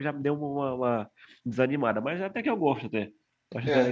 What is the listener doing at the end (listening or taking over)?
taking over